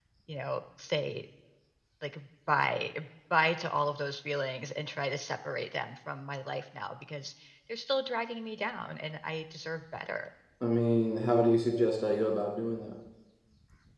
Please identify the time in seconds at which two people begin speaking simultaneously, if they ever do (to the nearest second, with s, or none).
none